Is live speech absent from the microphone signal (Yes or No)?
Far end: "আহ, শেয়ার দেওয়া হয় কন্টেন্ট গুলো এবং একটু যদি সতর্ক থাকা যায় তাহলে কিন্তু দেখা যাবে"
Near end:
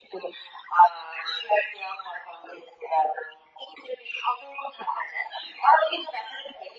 Yes